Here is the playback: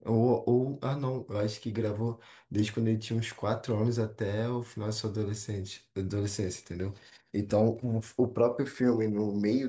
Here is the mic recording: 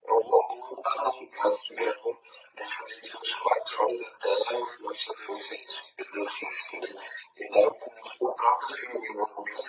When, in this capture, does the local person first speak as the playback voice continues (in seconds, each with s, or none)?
none